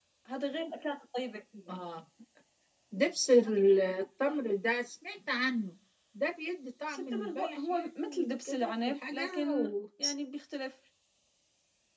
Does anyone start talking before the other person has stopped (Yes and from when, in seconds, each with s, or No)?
Yes, from 6.9 s